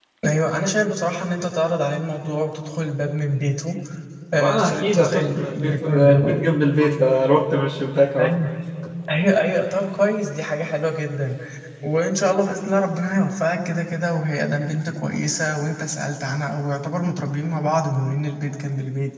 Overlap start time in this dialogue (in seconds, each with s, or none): 4.4 s